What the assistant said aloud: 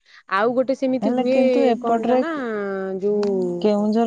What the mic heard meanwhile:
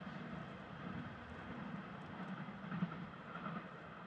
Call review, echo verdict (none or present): none